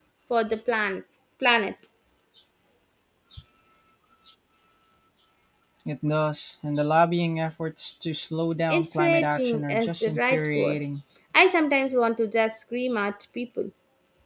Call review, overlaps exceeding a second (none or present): present